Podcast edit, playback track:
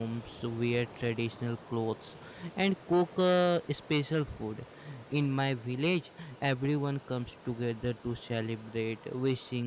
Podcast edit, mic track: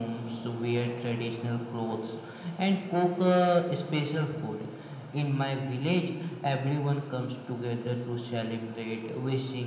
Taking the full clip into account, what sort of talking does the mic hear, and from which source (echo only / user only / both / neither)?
echo only